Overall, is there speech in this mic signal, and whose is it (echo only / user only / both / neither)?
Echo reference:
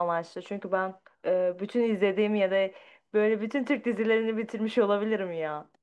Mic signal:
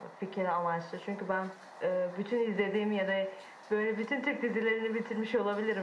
echo only